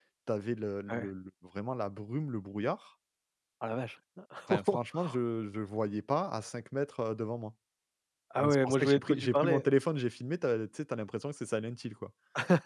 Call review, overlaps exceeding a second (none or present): present